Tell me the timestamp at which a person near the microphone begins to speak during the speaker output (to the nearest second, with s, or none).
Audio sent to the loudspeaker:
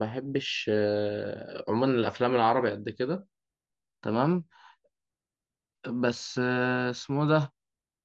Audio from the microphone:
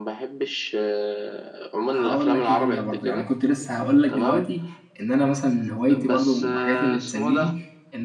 2 s